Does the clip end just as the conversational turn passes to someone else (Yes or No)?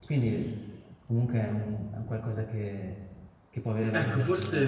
Yes